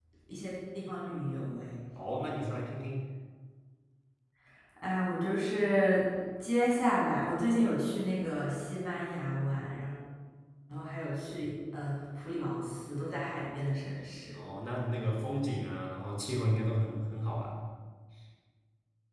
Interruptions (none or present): none